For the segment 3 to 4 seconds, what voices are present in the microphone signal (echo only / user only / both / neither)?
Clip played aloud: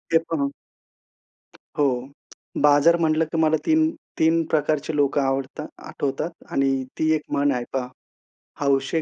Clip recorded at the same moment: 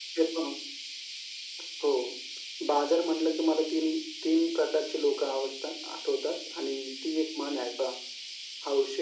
echo only